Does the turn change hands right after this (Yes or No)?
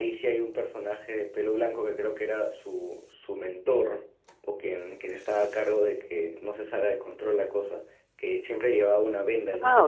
Yes